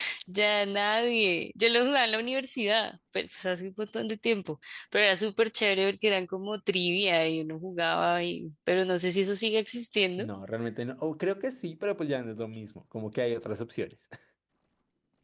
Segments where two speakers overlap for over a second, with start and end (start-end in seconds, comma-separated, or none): none